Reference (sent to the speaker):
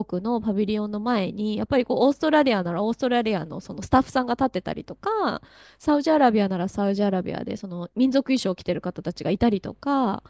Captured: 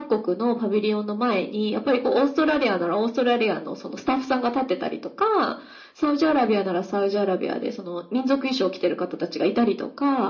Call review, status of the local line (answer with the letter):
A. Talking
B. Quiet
B